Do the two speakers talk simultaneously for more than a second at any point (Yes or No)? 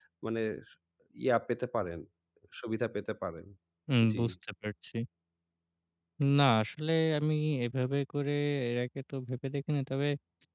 No